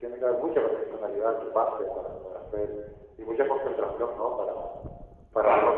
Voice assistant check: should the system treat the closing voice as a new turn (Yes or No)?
No